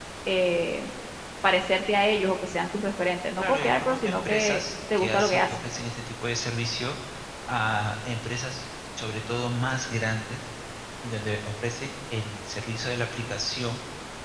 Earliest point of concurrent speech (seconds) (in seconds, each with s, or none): 3.4 s